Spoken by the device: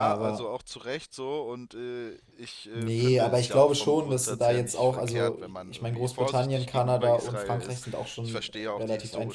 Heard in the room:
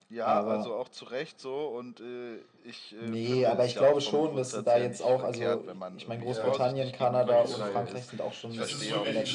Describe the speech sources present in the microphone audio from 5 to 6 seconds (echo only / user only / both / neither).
echo only